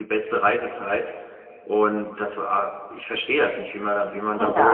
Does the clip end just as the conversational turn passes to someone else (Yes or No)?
Yes